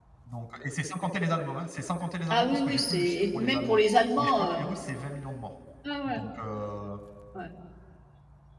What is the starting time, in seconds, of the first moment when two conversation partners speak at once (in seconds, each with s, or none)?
2.3 s